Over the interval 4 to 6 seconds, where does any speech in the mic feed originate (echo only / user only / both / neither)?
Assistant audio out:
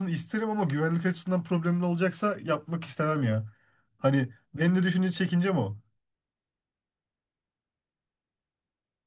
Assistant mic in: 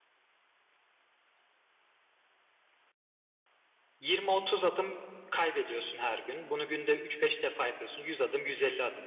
user only